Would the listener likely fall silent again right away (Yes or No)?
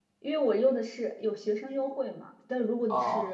Yes